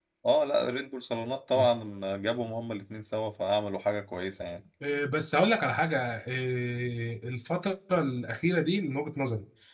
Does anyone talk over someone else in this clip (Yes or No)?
No